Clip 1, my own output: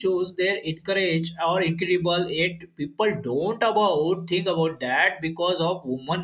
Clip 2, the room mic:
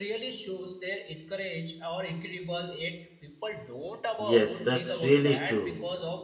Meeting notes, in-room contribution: present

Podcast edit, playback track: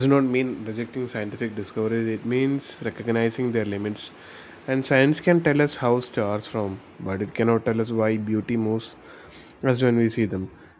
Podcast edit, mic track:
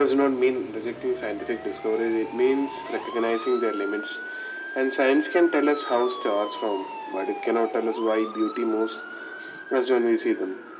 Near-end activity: none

